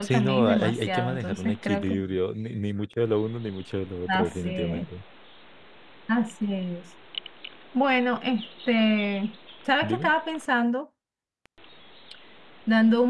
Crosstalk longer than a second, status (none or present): present